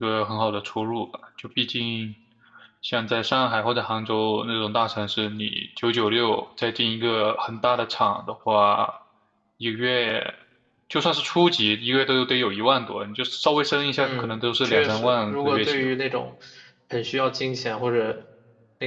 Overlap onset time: 14 s

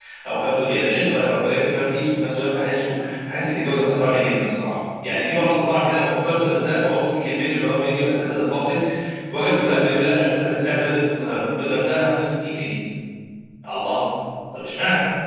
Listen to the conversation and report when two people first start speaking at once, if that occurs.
none

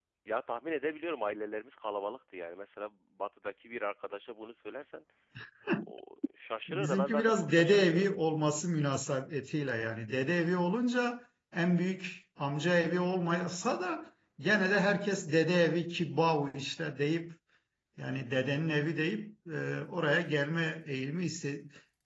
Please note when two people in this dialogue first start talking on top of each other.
7 s

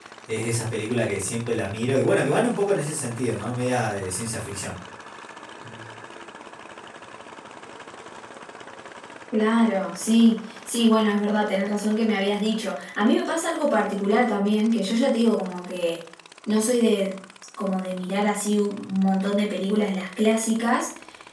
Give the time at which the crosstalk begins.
none

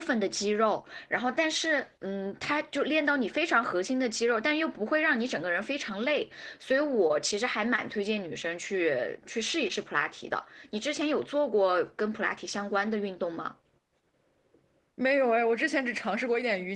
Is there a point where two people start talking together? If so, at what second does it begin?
none

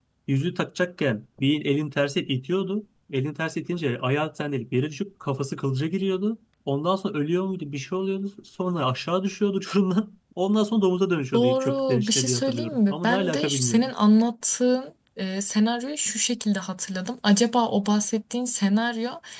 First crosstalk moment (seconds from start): 11 s

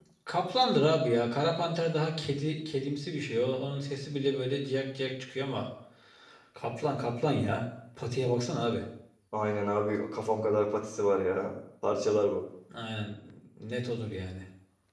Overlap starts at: none

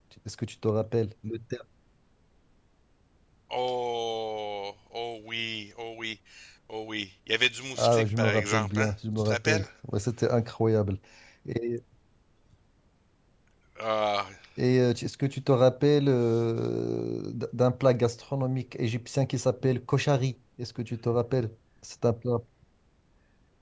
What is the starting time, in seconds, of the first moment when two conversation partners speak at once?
8 s

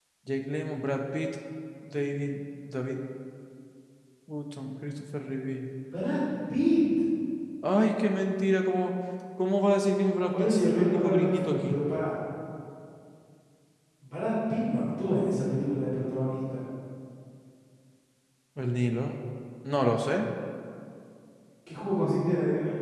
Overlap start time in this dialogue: 10 s

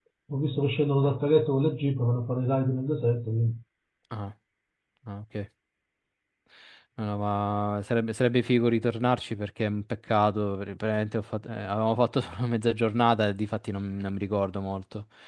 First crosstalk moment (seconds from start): none

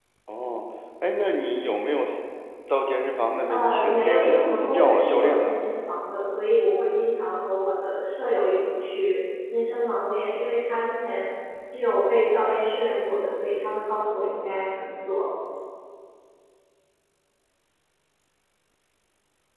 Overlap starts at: 3 s

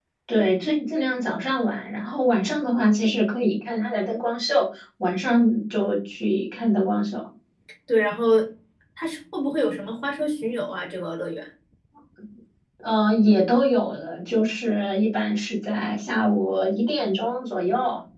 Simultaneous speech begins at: none

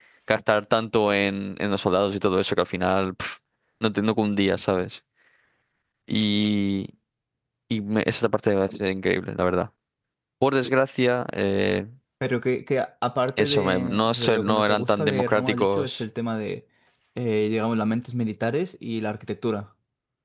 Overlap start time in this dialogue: 13 s

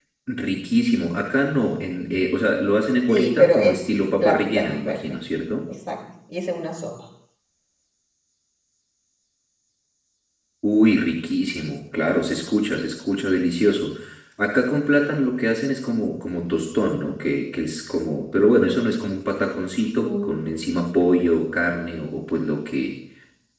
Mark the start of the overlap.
3 s

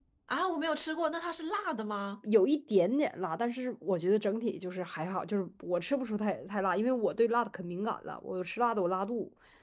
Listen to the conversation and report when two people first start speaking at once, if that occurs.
none

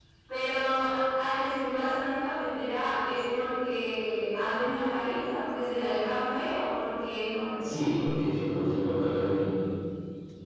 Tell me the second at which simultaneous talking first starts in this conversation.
none

